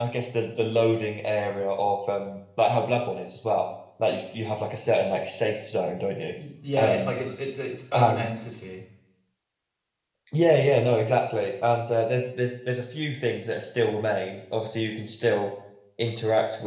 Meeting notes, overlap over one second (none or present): none